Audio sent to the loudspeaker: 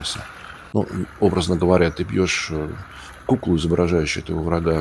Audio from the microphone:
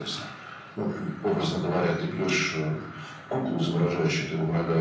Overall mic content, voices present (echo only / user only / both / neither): echo only